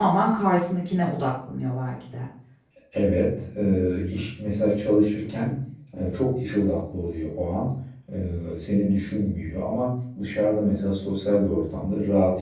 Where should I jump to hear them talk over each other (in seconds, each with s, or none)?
none